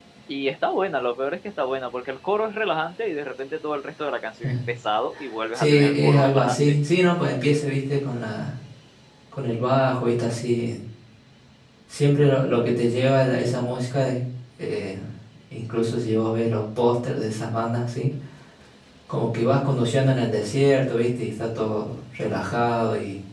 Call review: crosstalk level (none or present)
present